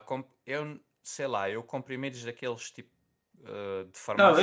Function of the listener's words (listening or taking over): taking over